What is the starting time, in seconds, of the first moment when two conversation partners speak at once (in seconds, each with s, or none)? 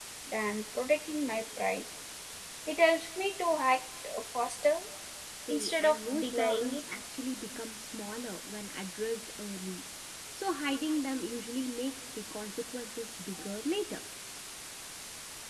5.5 s